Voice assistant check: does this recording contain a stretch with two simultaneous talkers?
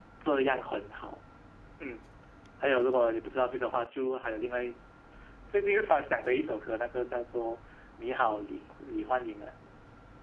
No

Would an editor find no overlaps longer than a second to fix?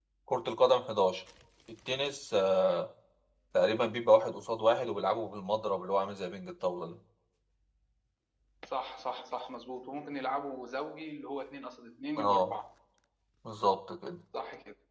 Yes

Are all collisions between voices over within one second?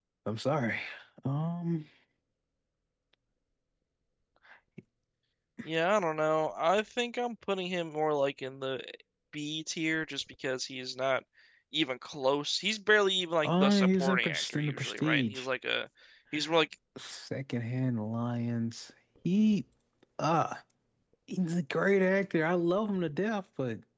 No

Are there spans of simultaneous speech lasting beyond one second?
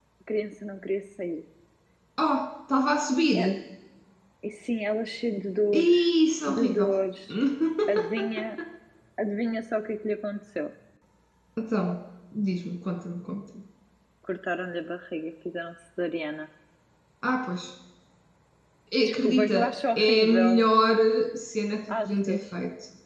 Yes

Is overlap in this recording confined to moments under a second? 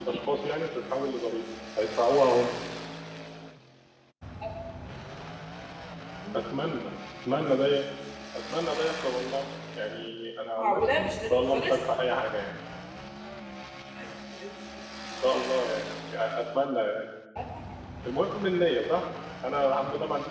No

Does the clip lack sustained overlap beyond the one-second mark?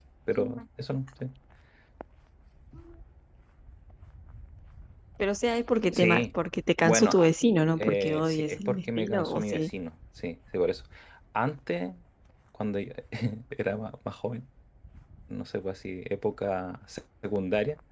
No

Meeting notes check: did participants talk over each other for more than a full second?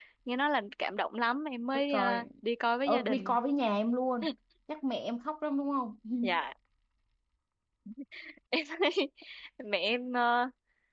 No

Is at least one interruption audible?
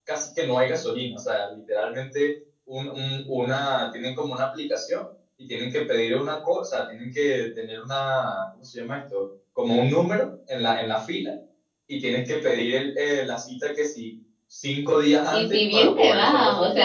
Yes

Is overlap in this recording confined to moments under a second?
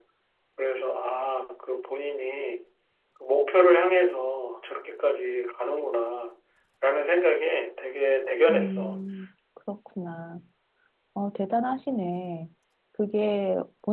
Yes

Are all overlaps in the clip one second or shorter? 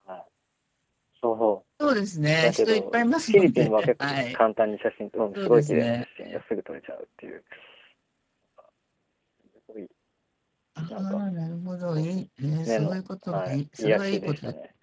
No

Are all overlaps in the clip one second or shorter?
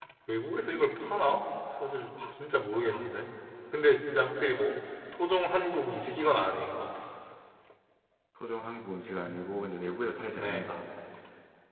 Yes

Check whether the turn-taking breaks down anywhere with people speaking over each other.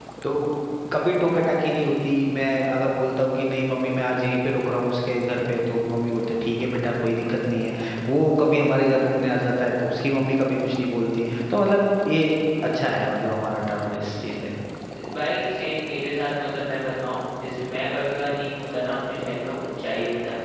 No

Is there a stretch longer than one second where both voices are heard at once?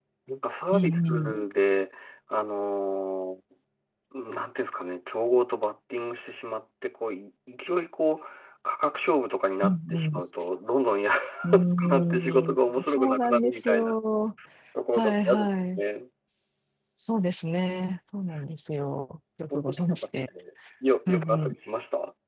Yes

